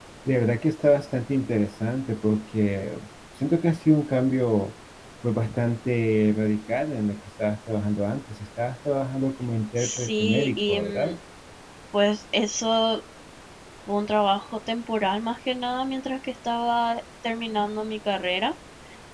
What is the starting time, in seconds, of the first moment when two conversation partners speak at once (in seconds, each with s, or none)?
9.8 s